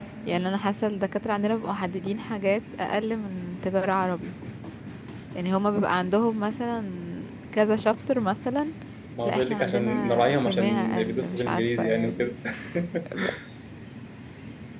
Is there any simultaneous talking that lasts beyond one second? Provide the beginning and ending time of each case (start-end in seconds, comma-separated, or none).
9.2-12.3